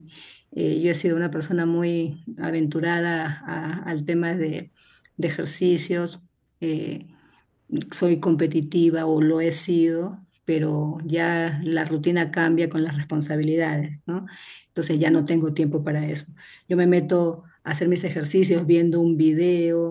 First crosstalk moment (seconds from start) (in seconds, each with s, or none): none